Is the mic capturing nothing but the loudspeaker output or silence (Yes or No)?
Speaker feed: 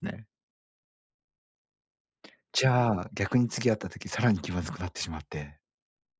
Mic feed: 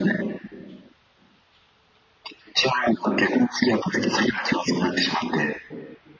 Yes